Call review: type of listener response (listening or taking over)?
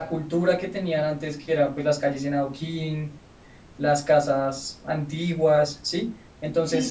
taking over